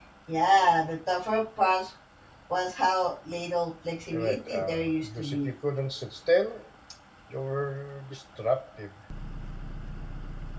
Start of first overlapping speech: 4.1 s

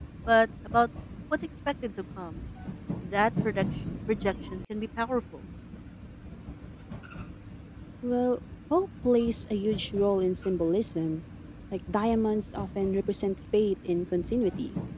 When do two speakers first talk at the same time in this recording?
none

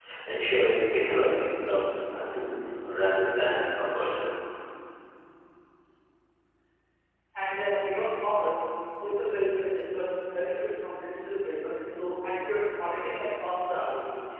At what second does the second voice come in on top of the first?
none

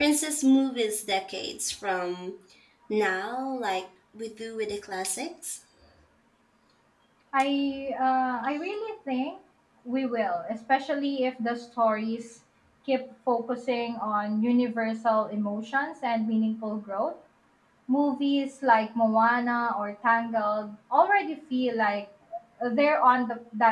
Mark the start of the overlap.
none

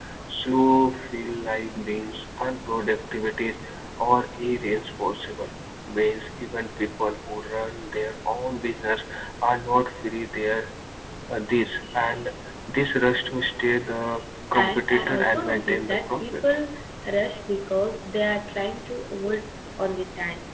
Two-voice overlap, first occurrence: 14.6 s

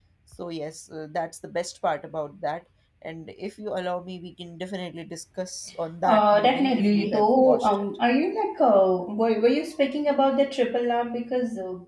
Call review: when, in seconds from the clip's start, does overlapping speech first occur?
6.0 s

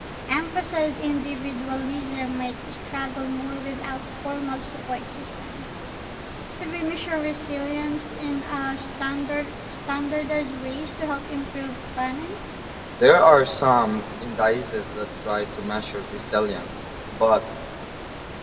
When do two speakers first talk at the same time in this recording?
none

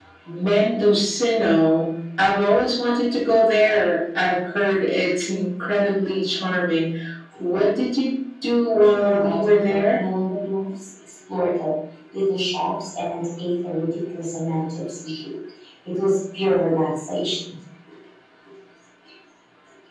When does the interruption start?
8.7 s

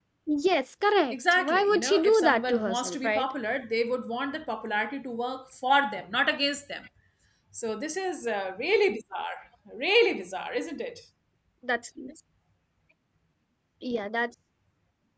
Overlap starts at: 1.1 s

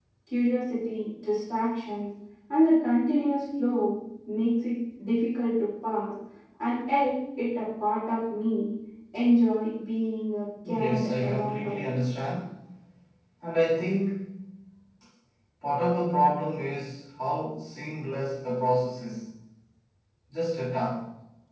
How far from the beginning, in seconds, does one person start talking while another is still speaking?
10.6 s

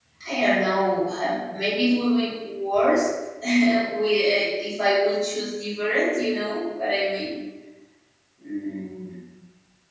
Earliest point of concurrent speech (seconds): none

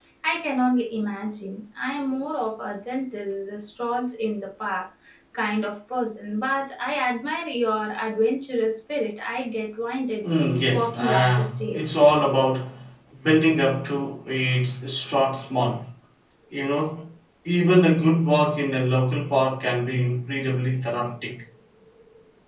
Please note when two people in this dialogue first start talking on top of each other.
10.7 s

